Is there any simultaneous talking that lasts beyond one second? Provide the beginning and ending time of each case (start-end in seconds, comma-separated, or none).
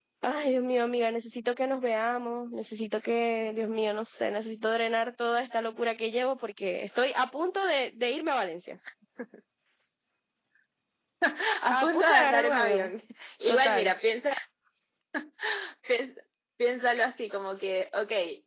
11.7-12.9